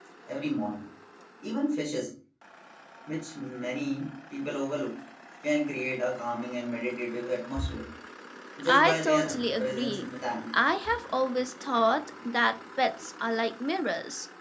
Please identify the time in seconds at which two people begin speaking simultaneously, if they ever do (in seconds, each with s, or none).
8.7 s